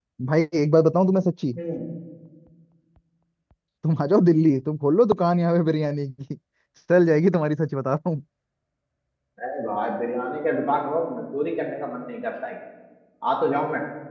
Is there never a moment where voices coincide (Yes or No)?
Yes